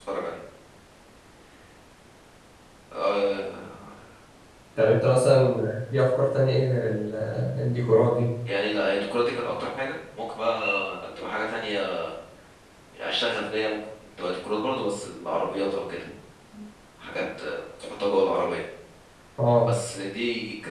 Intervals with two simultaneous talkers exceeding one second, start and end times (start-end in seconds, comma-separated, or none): none